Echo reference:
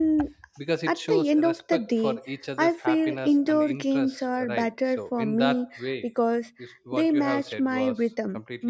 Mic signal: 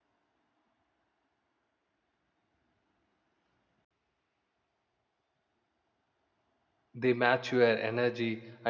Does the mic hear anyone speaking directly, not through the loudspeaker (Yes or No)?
Yes